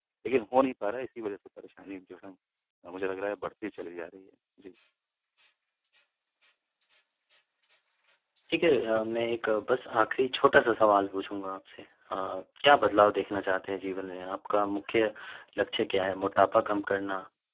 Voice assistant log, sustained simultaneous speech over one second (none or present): none